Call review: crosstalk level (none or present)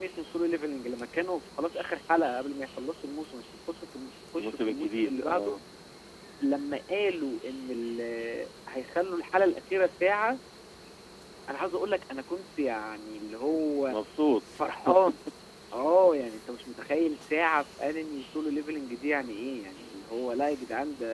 present